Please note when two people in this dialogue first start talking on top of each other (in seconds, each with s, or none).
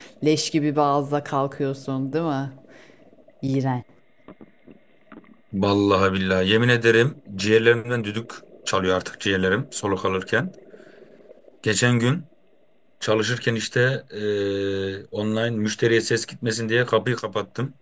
none